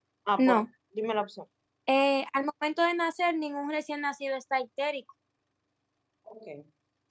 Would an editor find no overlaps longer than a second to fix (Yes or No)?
Yes